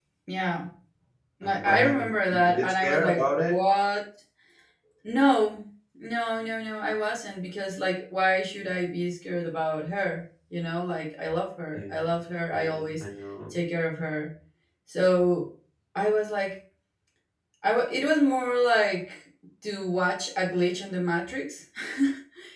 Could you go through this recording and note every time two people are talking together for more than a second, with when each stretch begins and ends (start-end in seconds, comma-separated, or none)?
1.4-3.6